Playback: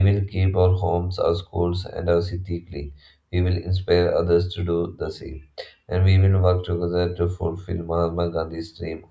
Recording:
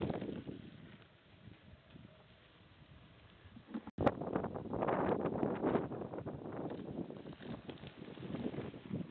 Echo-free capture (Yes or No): Yes